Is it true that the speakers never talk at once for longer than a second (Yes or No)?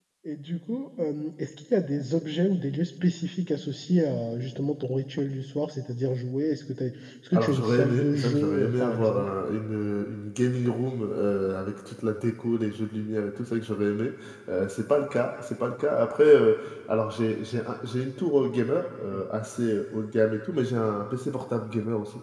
No